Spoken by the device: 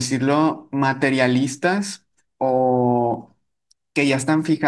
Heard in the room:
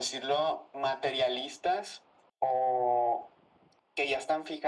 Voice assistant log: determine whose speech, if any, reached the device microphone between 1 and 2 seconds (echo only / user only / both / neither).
echo only